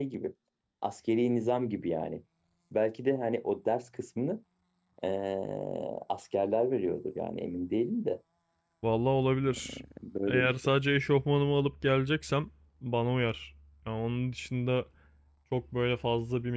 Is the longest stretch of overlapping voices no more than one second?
Yes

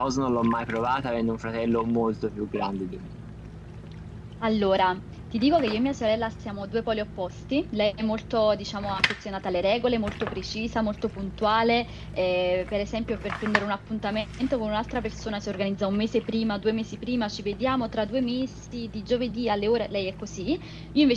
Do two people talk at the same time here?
No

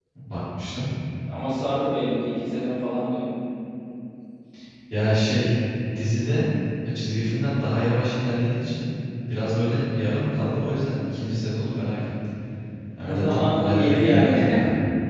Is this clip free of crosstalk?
No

